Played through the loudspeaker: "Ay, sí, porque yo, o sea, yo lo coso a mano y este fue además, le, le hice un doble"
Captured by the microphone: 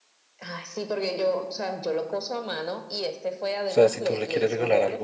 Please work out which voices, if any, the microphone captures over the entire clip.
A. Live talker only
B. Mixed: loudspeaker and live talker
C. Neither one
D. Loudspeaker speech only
B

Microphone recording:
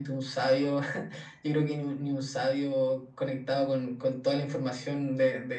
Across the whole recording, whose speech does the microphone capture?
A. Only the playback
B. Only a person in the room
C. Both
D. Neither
A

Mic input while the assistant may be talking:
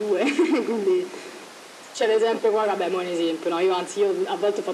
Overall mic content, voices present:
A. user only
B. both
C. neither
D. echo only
D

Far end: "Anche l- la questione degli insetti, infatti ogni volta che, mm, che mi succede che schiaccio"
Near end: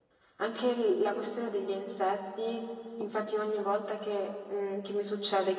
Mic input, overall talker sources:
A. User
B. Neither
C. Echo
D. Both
C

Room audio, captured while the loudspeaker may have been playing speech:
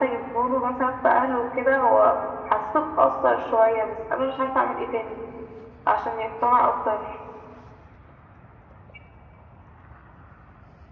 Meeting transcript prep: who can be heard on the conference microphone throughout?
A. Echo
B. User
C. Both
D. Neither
A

